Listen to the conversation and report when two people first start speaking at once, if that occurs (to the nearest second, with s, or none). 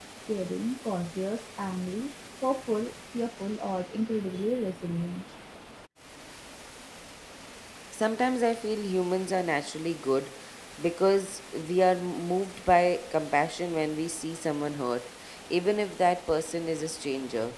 none